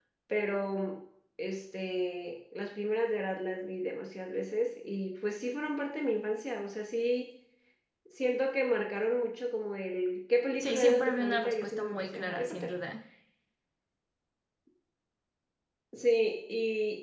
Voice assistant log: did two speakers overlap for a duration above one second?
Yes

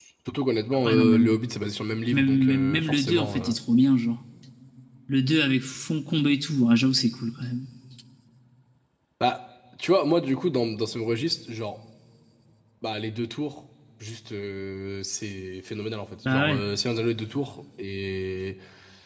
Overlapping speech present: Yes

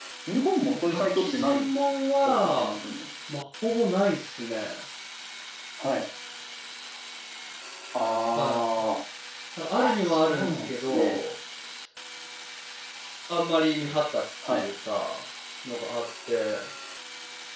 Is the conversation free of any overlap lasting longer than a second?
No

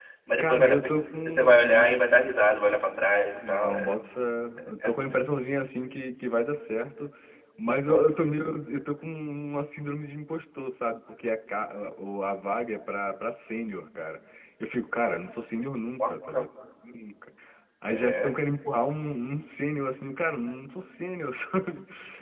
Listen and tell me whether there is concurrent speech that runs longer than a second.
Yes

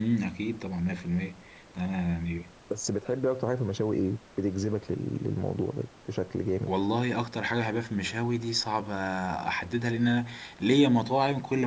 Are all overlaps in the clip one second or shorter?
Yes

